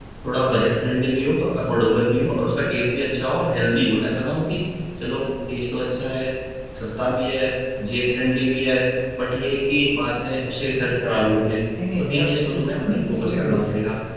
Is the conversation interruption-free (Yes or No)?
No